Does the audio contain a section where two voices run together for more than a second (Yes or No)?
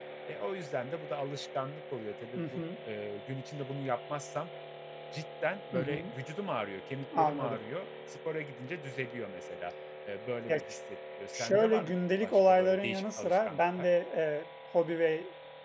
Yes